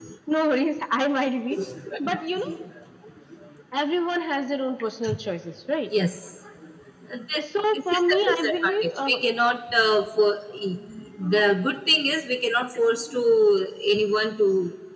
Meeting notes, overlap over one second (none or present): present